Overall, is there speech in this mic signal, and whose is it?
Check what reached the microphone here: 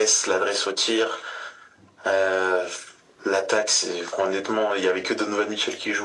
echo only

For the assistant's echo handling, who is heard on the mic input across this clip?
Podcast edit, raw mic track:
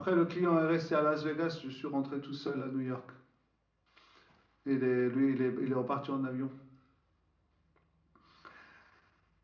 echo only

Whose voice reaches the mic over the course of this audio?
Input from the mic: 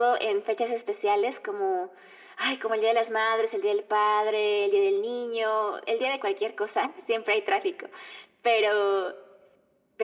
echo only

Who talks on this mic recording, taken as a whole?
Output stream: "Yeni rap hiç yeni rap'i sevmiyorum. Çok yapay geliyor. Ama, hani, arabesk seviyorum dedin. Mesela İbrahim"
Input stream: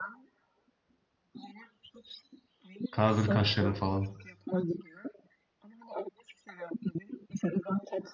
both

